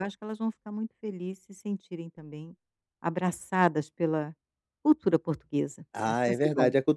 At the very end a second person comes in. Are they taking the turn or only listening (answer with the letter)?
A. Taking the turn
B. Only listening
A